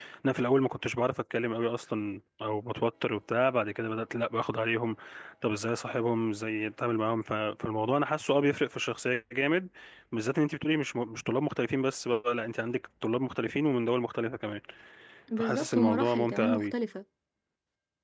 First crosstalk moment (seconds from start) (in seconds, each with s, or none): 15.4 s